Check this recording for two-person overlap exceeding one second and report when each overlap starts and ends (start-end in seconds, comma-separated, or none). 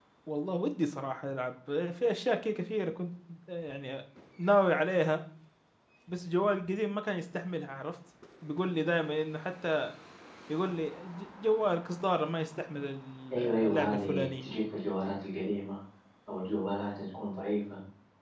13.3-14.5